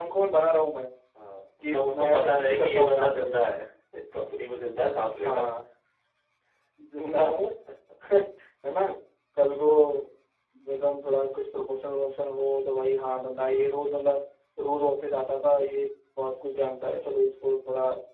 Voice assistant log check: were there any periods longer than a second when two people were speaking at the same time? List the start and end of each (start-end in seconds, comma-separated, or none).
1.6-3.3